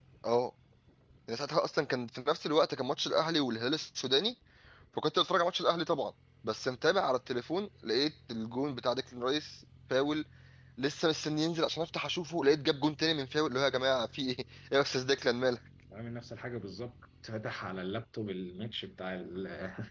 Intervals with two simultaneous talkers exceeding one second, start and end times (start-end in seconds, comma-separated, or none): none